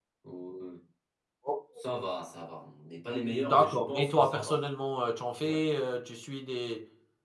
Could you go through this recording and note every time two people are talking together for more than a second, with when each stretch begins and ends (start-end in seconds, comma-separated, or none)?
3.3-4.6